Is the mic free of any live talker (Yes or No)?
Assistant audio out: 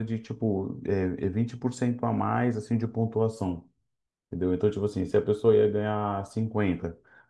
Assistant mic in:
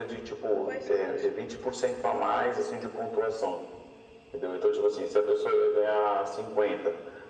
No